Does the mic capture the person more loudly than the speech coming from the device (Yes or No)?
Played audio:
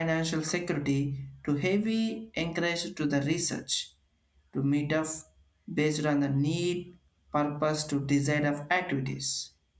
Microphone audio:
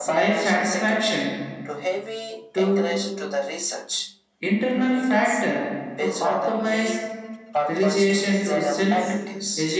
Yes